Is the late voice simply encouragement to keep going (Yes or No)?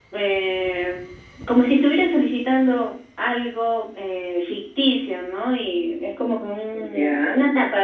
Yes